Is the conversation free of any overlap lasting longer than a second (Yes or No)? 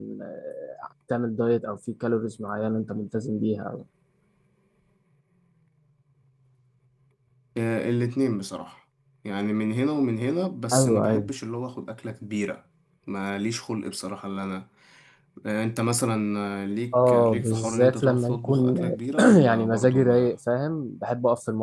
No